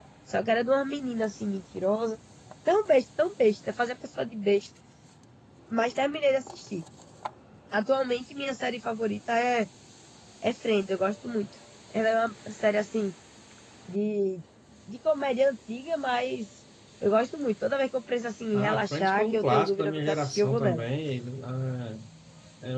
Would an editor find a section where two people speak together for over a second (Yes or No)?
Yes